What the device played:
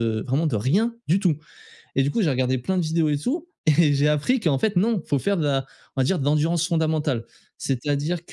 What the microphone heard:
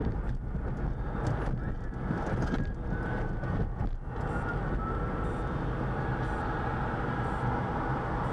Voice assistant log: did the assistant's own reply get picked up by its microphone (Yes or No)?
No